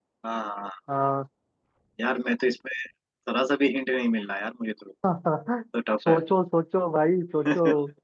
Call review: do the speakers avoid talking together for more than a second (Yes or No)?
Yes